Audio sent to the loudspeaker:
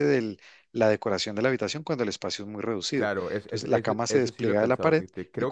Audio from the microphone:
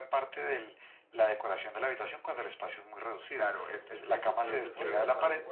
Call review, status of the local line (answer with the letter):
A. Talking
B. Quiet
A